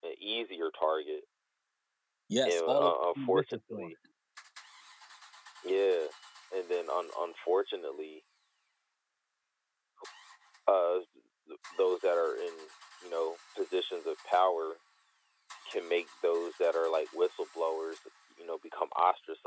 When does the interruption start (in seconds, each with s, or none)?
2.5 s